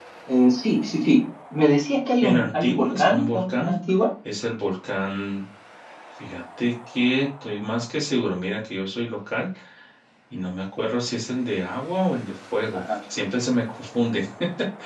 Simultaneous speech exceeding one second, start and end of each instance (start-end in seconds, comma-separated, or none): 2.2-3.7